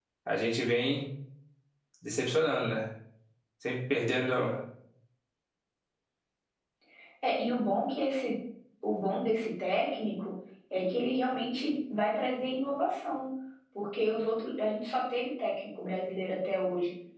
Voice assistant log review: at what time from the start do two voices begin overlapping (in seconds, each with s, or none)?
none